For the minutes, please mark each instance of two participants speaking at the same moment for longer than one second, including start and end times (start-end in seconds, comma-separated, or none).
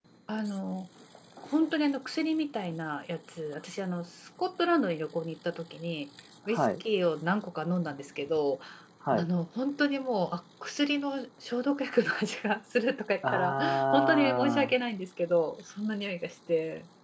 13.2-14.7